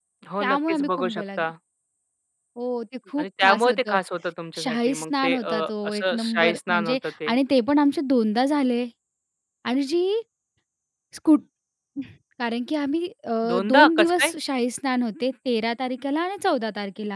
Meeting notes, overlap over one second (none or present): present